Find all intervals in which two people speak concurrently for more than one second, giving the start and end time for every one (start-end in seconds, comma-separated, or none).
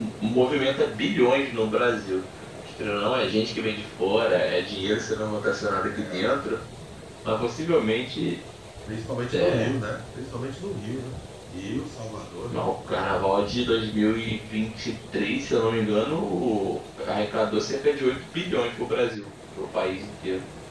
none